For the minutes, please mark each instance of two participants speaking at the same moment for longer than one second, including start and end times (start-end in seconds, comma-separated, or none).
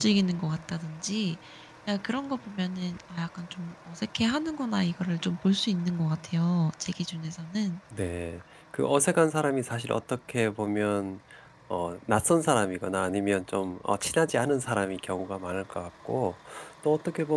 none